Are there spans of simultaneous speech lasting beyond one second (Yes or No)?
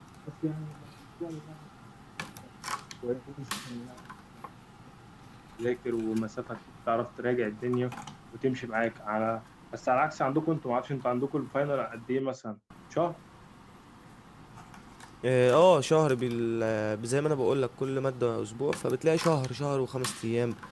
No